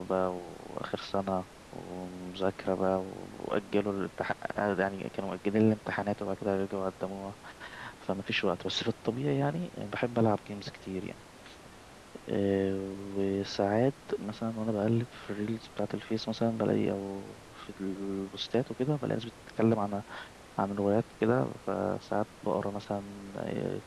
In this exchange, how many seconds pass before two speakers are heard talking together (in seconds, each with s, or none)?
none